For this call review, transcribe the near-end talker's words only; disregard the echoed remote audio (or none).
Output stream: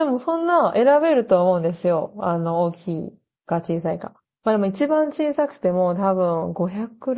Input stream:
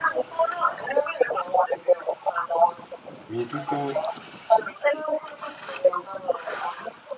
水と、